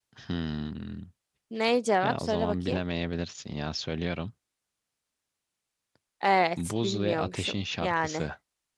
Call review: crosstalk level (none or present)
present